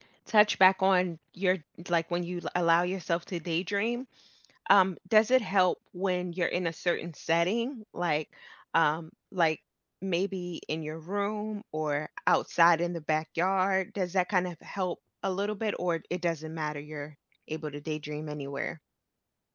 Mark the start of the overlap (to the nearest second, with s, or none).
none